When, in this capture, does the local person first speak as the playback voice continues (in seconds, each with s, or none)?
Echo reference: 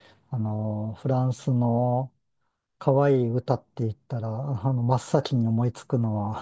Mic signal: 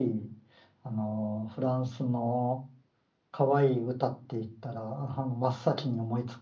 none